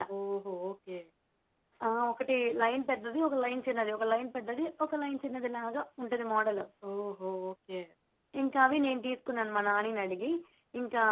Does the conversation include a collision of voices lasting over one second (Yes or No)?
No